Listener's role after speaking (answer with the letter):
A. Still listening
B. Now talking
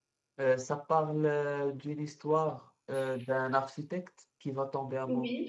A